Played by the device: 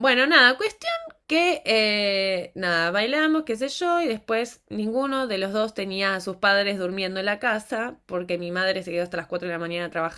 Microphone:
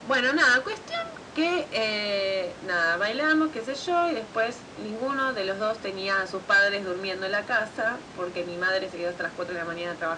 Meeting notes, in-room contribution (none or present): none